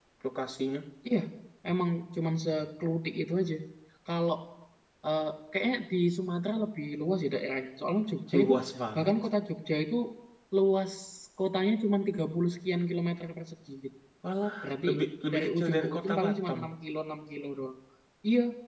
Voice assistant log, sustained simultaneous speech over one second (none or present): present